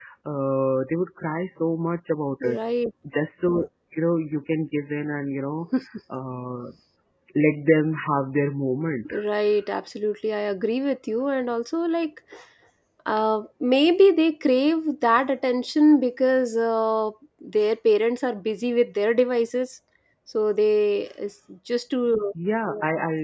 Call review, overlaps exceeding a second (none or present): none